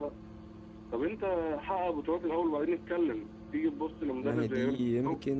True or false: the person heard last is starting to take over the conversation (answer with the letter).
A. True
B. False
A